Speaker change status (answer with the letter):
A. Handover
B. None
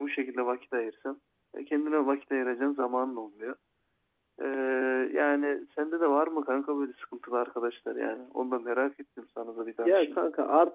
A